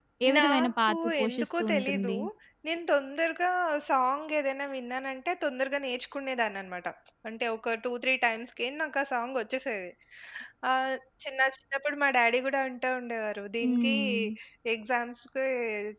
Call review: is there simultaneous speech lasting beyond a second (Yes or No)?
Yes